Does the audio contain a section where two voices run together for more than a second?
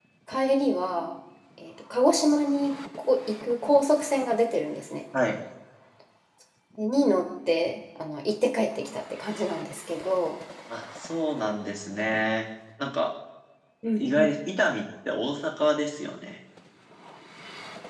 No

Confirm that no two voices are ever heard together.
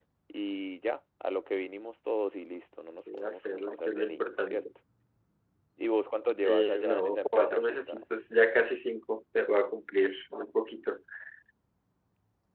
No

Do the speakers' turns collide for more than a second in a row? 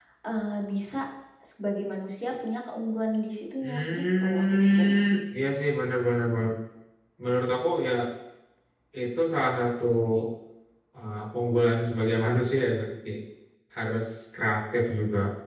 Yes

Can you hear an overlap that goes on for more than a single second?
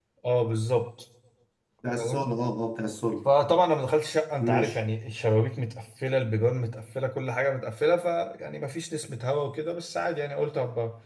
No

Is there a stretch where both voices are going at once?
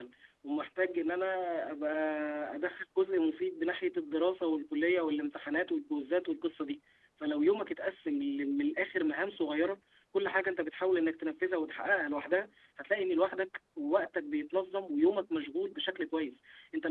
No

